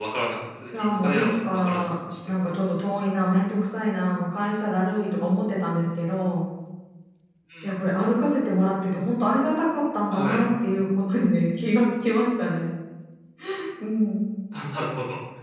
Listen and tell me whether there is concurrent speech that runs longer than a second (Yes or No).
Yes